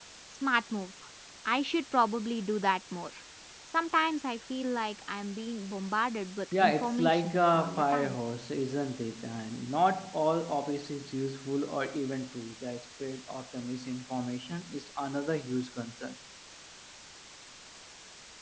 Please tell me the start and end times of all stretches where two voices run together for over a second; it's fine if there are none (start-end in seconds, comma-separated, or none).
6.6-8.2